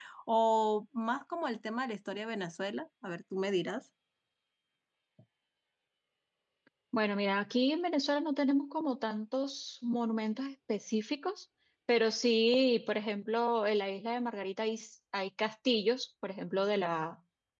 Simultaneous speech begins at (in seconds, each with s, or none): none